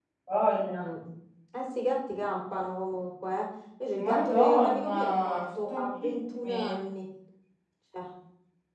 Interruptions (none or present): present